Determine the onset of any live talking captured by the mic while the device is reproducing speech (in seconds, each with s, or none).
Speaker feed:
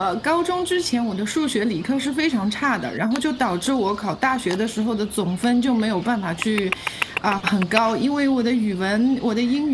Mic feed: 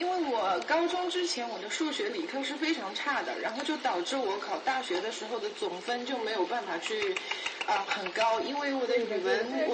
8.8 s